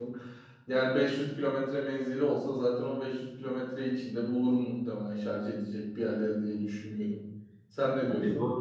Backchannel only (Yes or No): No